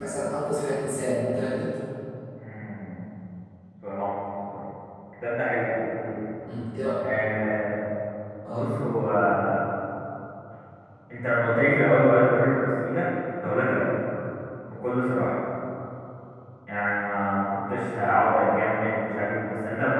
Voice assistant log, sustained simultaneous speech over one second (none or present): none